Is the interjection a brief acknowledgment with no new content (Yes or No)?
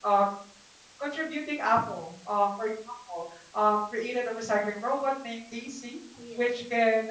Yes